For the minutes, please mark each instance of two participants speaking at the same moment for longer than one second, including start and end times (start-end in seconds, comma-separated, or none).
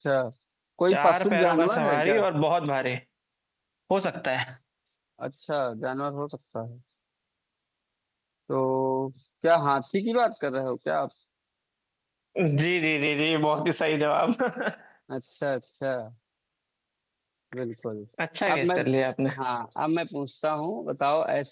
0.9-2.2